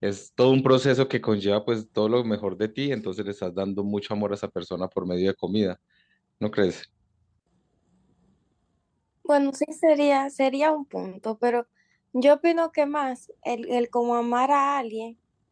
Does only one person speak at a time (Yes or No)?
Yes